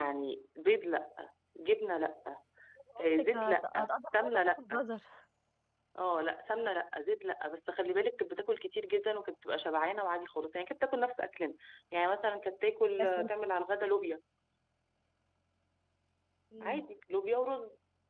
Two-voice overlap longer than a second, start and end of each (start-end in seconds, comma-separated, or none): 3.0-4.6